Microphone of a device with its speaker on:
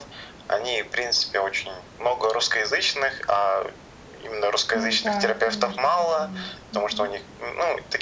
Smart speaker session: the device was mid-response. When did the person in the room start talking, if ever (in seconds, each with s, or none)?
4.7 s